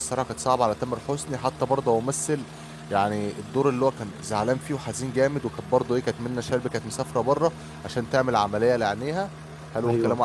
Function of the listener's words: listening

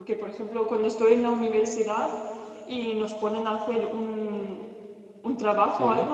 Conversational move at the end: listening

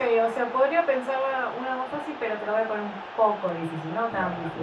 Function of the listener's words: taking over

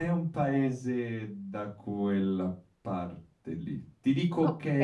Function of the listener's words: listening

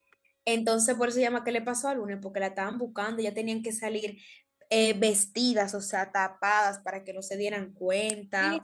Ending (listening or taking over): taking over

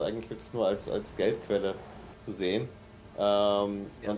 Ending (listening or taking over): listening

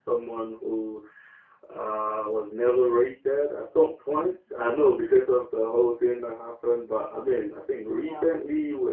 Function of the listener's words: listening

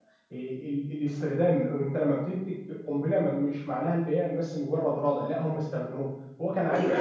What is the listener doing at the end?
taking over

